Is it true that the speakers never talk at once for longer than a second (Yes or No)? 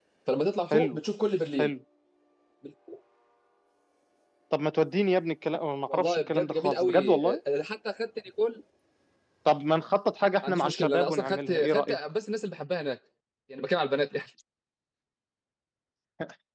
No